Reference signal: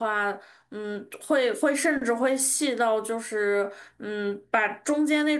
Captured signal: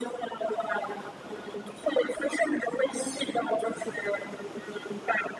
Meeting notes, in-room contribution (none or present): none